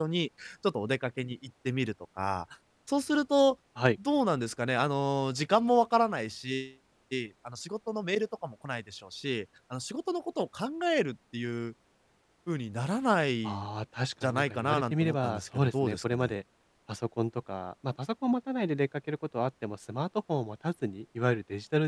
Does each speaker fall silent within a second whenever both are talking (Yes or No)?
No